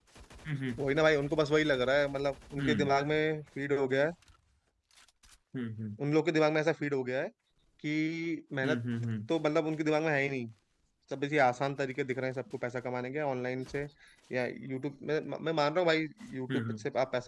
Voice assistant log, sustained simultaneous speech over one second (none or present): none